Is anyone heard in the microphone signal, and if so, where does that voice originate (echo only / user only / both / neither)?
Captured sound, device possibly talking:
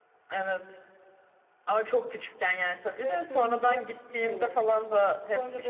both